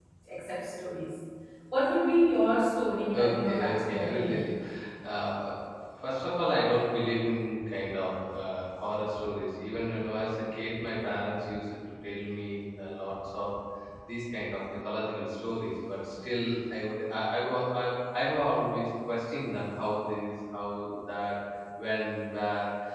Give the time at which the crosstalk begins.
3.1 s

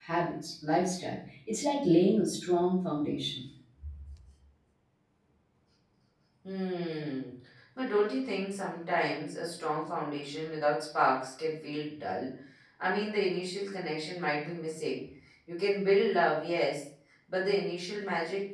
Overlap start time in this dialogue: none

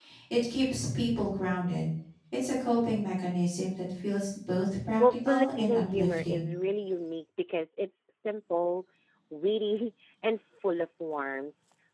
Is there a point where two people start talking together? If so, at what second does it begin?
5.0 s

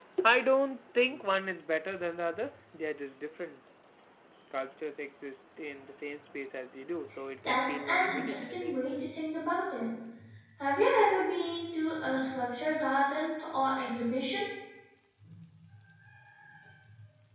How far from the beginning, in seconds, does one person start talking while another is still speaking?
7.4 s

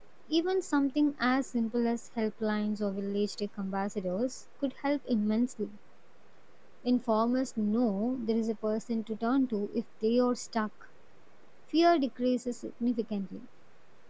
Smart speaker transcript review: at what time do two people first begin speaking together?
none

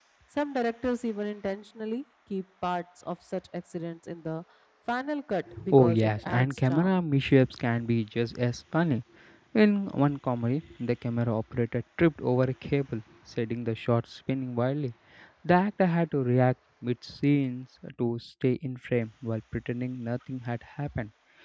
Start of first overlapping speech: 5.5 s

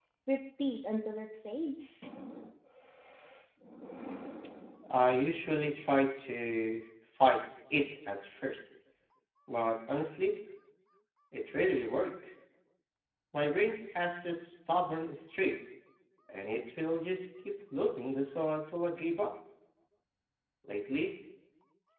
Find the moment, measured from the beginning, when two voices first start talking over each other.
none

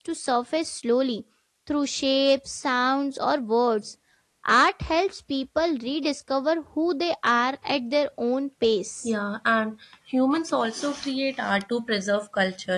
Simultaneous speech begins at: none

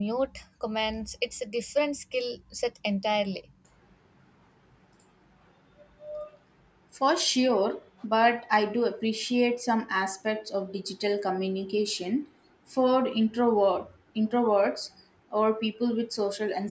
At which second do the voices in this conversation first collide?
none

